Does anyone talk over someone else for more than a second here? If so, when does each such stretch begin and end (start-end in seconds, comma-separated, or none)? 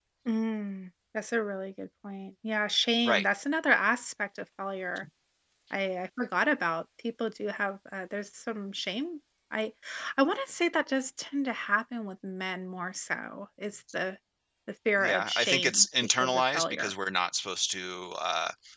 15.0-16.9